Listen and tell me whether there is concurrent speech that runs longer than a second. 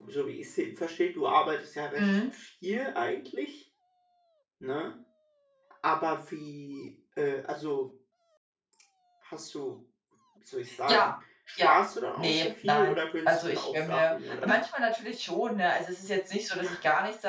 Yes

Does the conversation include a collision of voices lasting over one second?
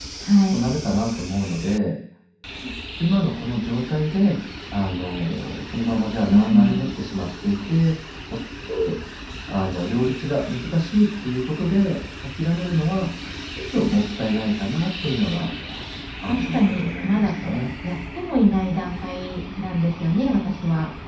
Yes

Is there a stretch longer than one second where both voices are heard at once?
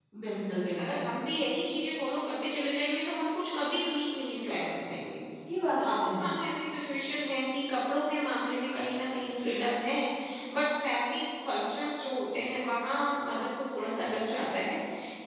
No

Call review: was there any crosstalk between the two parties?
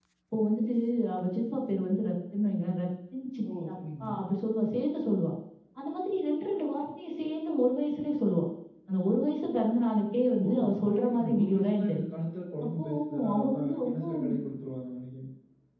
Yes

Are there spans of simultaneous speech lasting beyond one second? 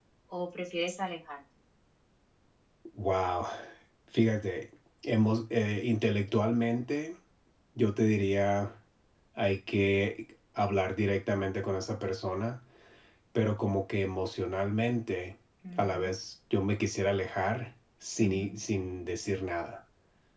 No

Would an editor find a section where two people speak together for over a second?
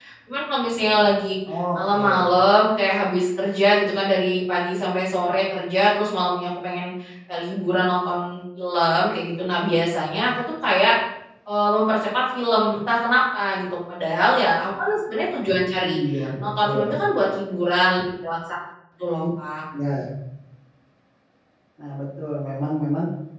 No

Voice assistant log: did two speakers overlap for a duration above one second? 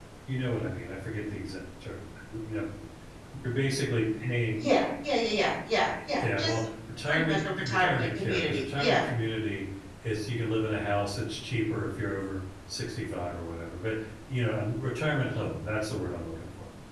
Yes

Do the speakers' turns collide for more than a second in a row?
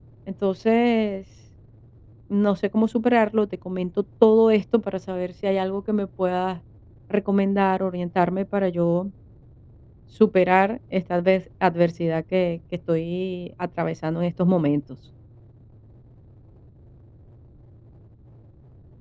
No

